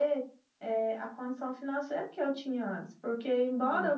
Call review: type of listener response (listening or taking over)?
listening